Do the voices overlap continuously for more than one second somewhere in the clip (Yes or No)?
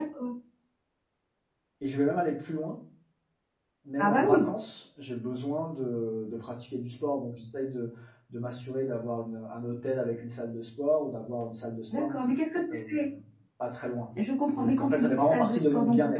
Yes